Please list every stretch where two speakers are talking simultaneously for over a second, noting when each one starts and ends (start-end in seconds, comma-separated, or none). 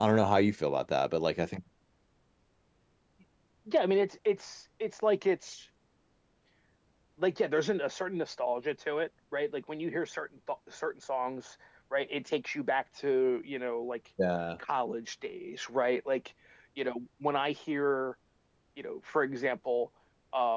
none